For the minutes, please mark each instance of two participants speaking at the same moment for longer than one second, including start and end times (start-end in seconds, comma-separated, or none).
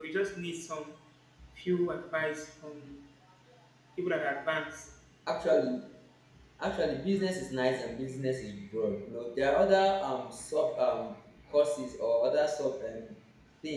none